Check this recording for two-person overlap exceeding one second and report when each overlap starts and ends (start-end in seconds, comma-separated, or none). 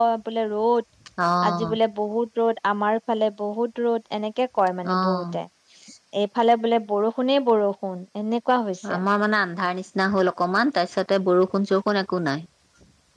none